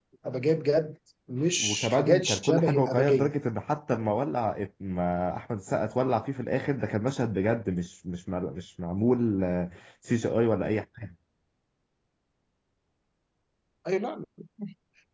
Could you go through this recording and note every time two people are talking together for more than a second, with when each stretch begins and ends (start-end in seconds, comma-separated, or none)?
1.6-3.3